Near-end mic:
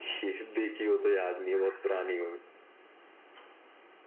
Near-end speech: none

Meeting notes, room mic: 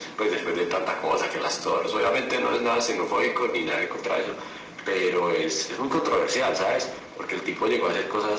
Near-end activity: none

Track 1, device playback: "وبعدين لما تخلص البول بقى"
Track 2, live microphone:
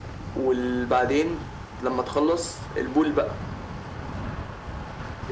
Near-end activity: none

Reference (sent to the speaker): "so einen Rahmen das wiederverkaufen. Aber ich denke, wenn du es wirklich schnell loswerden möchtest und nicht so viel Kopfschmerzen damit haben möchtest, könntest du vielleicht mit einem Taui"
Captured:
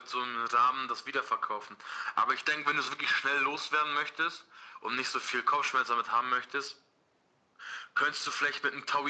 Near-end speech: none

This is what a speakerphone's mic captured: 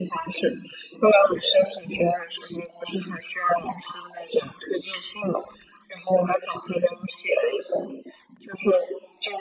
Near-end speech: none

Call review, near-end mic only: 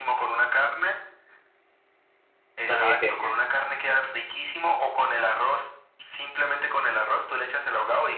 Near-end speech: present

